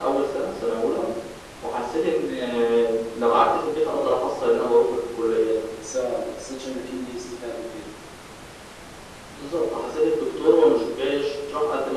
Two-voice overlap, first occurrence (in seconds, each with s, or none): none